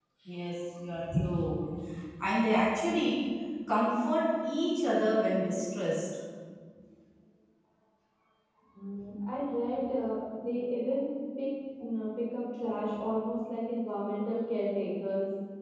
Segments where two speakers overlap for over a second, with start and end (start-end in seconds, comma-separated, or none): none